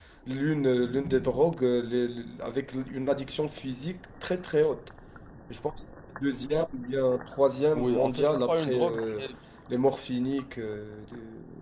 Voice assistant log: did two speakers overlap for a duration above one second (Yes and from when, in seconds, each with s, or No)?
Yes, from 7.7 s